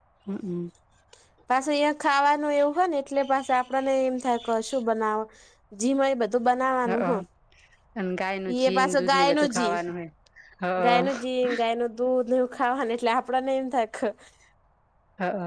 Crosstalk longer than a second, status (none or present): present